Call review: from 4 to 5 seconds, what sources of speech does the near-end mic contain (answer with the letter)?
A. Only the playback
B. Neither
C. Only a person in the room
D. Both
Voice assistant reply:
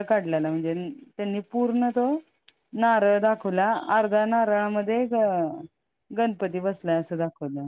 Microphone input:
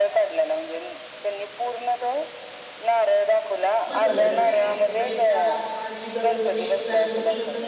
D